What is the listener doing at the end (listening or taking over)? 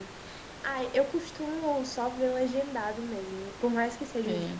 listening